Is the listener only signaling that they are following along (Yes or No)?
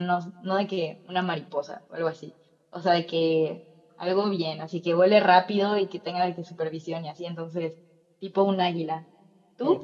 No